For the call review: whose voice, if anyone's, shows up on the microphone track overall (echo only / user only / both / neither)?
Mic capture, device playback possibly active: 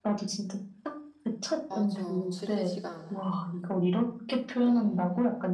both